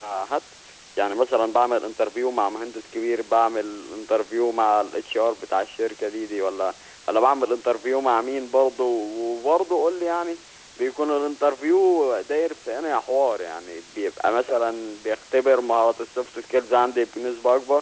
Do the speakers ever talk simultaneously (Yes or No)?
No